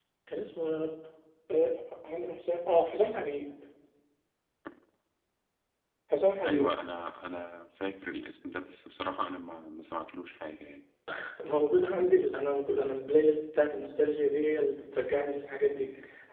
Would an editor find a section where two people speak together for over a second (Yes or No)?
No